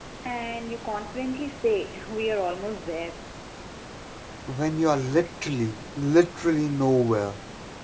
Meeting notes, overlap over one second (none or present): none